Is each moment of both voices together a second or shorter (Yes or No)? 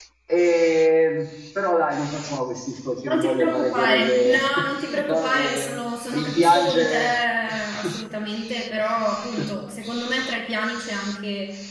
No